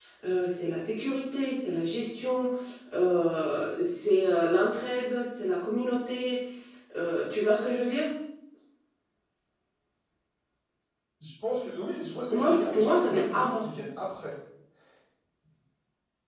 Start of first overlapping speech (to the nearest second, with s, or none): 12 s